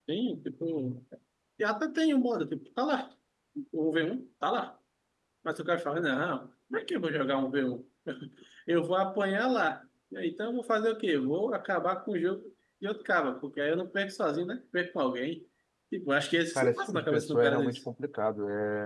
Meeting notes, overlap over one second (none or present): present